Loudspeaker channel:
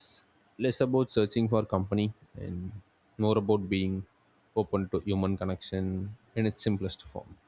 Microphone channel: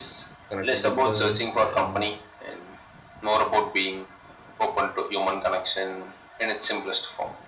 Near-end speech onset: 0.5 s

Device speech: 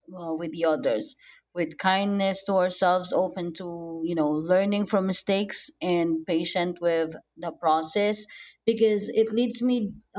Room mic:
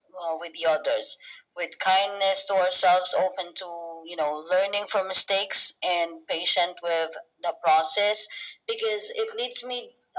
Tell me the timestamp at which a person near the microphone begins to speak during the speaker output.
none

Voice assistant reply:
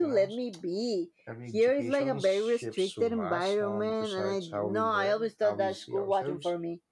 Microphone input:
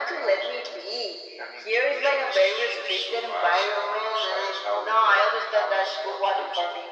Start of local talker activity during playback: none

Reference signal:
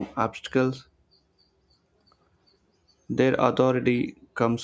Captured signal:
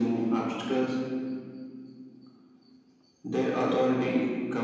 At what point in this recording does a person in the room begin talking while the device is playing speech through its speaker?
none

